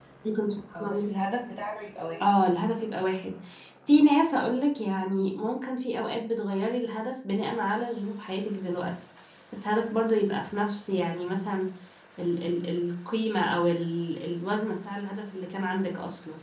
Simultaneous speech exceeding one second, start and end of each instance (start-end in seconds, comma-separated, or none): none